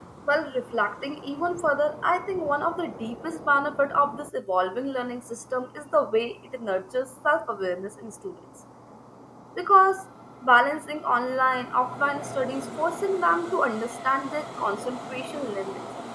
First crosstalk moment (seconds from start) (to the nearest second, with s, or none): none